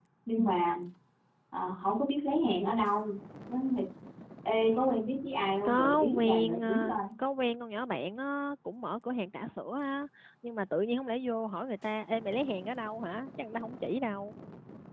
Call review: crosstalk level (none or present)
present